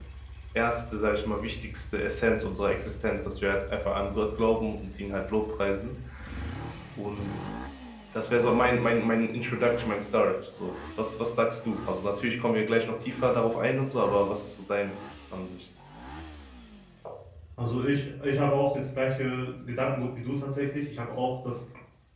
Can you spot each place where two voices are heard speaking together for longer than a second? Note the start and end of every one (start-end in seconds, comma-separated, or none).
none